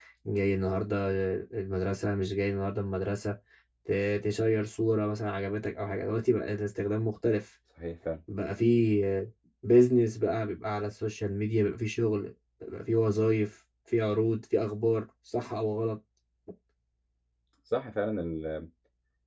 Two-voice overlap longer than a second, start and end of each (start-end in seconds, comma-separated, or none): none